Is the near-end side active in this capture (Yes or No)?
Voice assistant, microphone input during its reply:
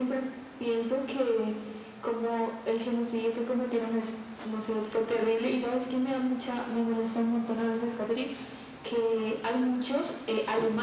No